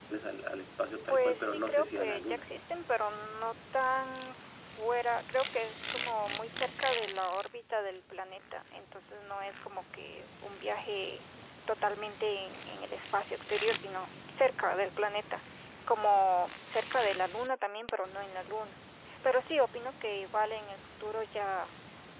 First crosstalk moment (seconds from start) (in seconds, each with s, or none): 1.1 s